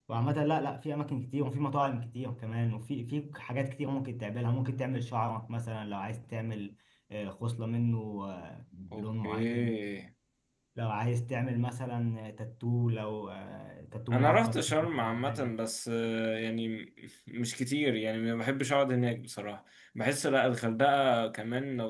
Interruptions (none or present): present